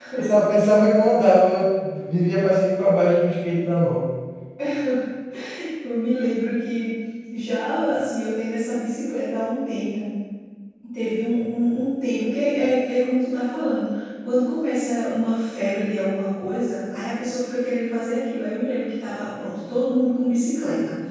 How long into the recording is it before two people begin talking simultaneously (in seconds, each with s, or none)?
none